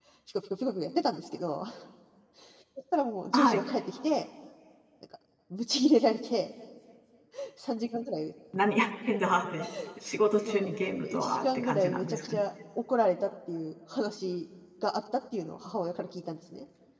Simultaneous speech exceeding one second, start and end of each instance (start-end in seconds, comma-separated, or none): 10.4-12.4